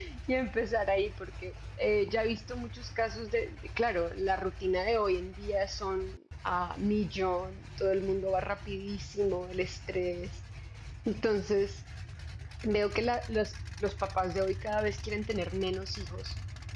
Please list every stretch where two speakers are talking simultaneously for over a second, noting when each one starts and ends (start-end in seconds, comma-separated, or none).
none